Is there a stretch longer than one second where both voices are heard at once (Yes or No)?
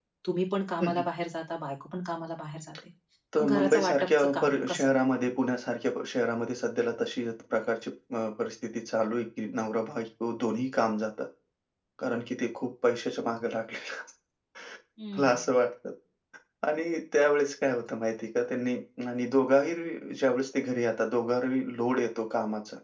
Yes